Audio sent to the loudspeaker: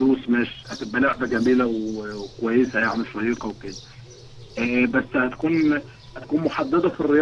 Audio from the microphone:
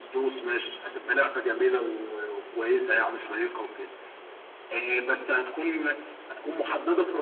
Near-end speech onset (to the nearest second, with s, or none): none